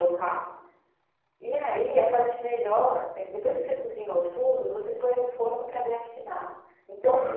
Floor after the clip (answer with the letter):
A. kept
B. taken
A